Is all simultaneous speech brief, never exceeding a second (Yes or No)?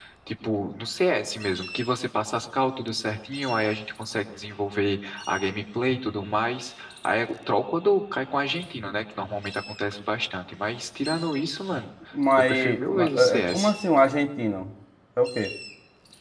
No